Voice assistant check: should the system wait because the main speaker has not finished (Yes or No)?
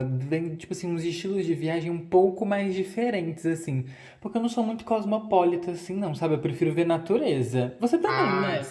No